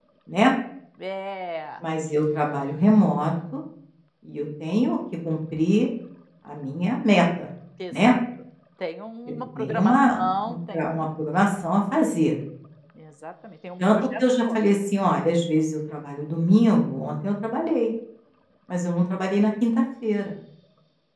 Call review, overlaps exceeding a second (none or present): present